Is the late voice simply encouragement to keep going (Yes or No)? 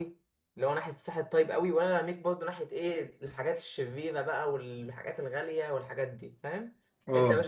Yes